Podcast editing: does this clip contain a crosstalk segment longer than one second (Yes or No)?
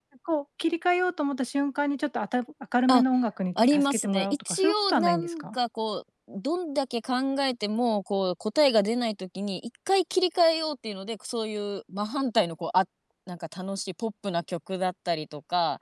Yes